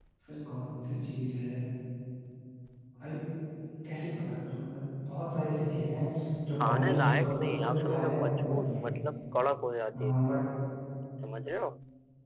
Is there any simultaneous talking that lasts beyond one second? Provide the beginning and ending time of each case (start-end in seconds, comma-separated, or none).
6.6-8.8